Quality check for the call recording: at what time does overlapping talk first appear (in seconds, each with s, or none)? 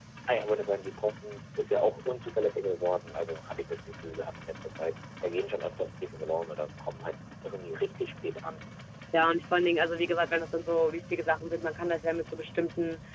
none